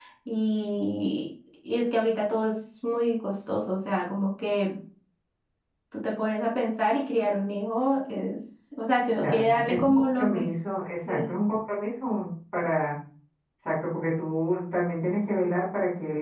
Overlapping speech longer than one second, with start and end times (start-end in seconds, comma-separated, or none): 9.2-10.5